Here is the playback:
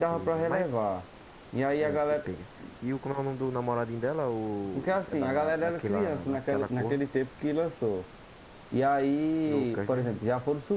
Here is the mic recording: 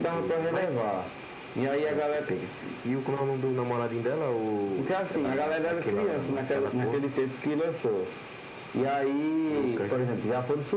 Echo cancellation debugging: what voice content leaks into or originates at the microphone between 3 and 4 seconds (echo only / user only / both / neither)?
echo only